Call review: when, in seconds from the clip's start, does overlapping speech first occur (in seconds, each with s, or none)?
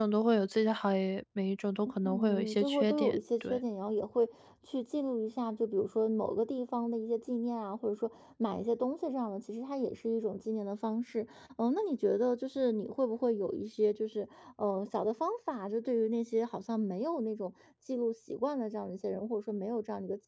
1.9 s